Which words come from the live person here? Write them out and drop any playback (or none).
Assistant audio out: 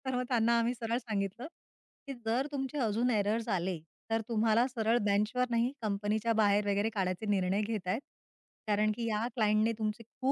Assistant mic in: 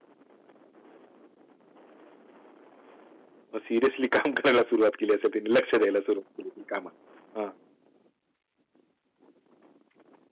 मग सिरियसली काम करायला सुरुवात केली असेल त्यांनी. लक्ष द्यायला सुरुवात केली असेल कामात. हां.